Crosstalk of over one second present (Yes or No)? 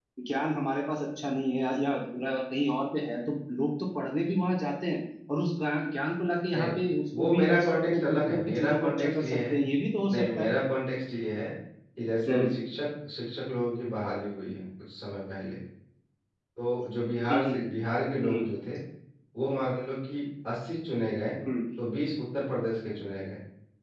Yes